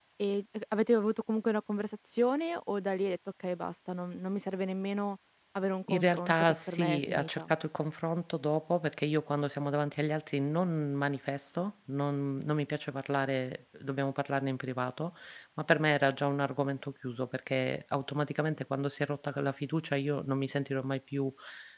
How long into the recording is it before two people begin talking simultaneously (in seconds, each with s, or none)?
5.9 s